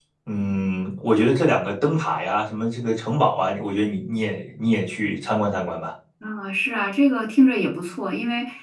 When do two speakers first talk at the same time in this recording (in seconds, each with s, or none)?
none